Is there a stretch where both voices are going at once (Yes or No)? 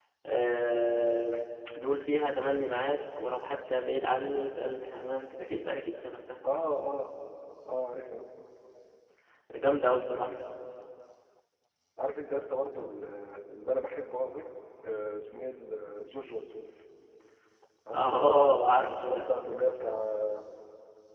Yes